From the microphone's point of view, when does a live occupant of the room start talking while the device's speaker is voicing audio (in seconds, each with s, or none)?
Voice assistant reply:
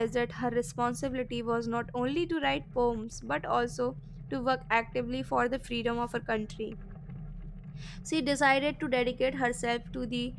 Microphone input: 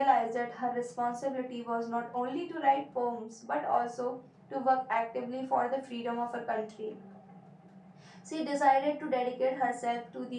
none